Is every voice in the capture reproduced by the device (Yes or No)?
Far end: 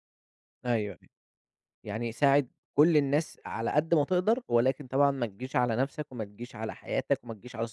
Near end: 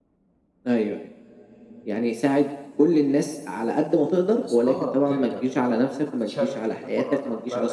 No